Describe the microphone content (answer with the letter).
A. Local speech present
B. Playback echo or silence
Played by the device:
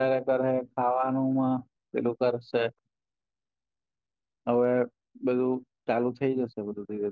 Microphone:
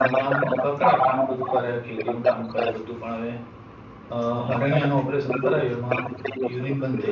A